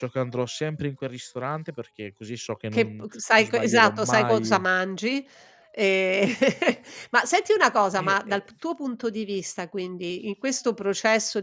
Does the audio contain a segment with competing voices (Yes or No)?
Yes